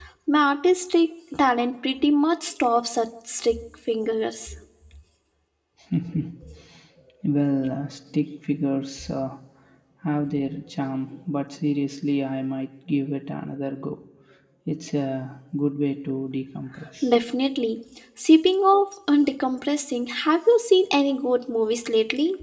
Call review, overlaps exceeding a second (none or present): none